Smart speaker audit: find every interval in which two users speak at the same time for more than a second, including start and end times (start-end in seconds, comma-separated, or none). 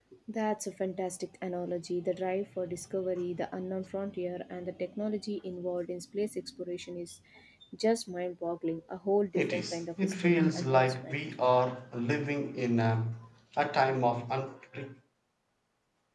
9.3-11.2